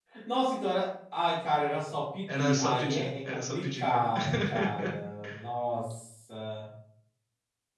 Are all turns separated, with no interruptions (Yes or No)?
No